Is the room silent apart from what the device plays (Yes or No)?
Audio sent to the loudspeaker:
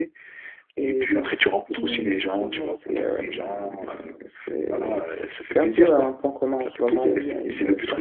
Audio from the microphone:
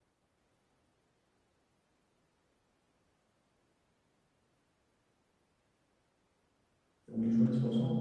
No